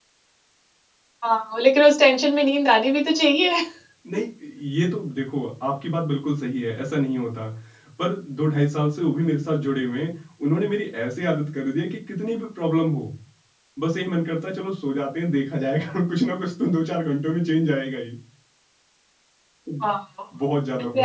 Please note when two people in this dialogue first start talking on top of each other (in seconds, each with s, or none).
none